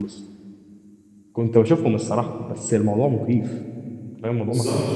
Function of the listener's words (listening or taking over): taking over